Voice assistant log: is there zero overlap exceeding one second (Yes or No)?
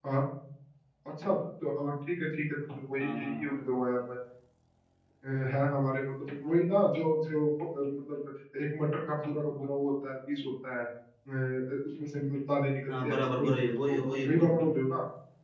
No